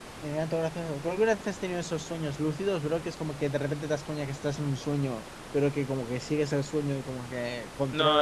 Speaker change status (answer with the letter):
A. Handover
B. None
A